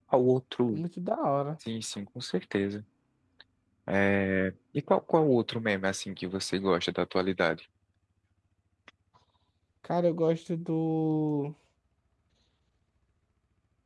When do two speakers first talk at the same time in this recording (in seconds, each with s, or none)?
none